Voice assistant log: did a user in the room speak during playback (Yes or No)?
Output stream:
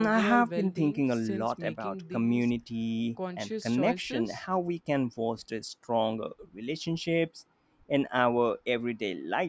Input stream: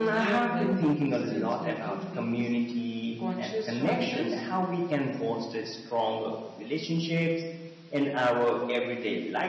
No